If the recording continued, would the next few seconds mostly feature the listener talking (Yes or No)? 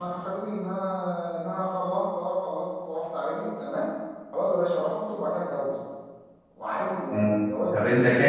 Yes